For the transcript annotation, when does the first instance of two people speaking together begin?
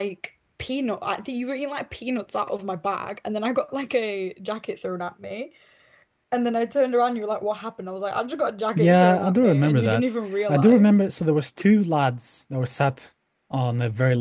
9 s

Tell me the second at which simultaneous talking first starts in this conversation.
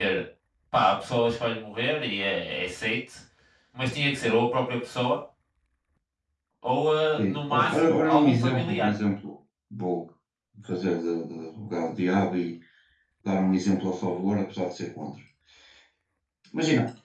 7 s

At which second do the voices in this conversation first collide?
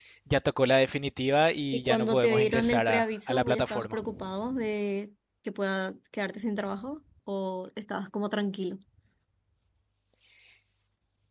2 s

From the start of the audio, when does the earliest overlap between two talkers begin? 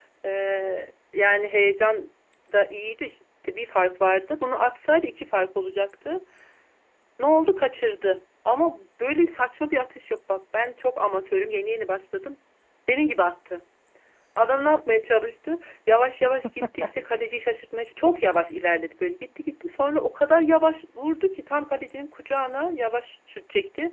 none

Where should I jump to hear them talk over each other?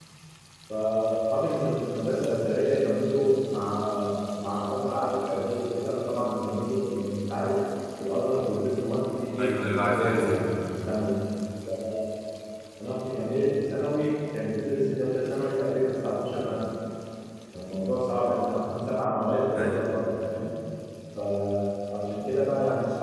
9 s

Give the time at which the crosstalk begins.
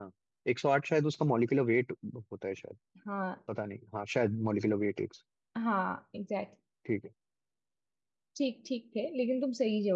none

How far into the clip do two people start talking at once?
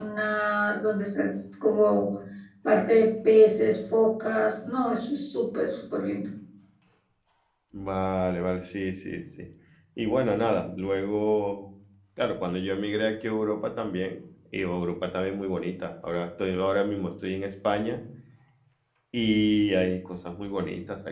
none

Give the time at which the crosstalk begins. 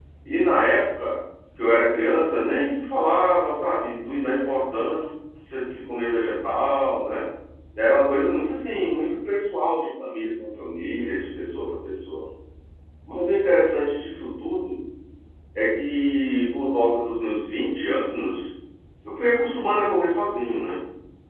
none

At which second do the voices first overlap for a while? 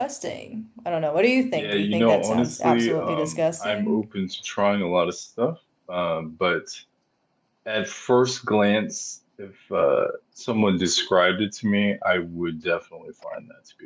2 s

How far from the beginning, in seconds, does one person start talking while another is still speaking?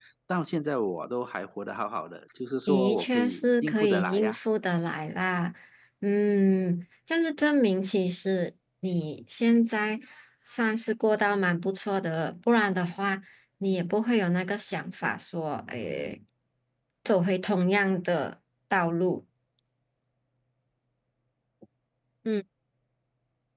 3 s

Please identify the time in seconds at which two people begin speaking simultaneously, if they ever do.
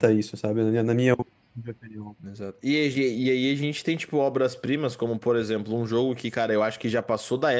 none

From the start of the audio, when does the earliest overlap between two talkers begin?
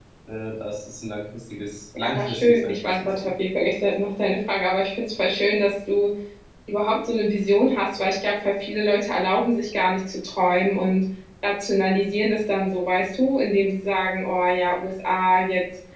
2 s

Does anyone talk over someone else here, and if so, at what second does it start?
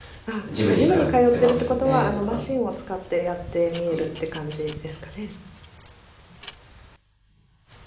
1 s

